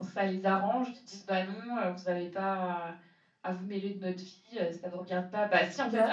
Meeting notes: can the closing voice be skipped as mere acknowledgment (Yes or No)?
Yes